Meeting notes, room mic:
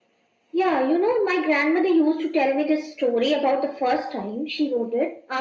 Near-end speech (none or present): none